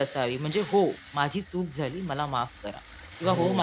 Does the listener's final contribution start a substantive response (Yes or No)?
Yes